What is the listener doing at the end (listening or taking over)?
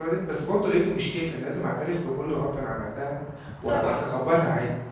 listening